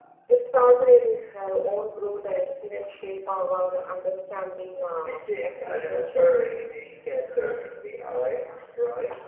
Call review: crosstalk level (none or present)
present